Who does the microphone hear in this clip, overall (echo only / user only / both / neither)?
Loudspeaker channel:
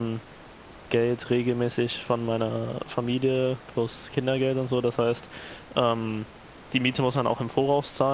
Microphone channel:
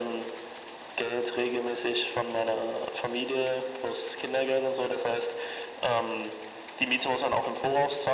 echo only